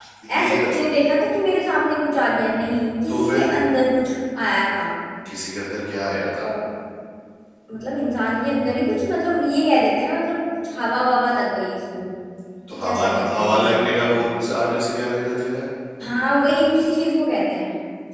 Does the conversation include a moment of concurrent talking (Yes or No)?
Yes